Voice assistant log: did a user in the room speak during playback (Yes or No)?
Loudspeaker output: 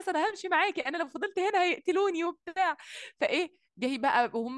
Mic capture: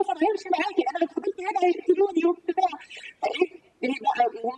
No